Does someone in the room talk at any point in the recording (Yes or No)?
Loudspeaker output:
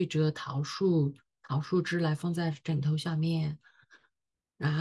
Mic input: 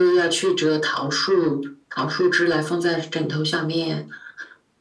No